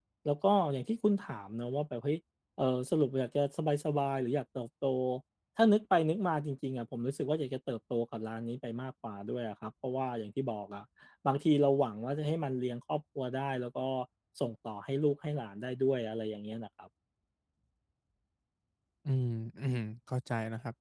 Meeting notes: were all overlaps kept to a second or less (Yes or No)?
Yes